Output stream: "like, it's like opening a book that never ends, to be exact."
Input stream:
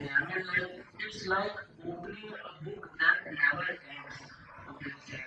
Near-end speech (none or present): none